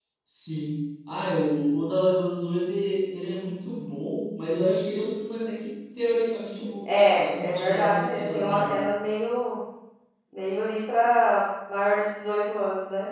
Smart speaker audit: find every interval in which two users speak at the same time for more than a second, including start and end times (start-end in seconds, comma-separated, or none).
6.9-8.8